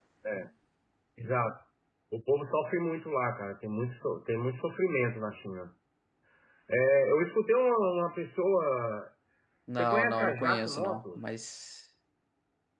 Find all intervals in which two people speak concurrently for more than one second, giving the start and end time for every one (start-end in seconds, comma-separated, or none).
9.8-11.2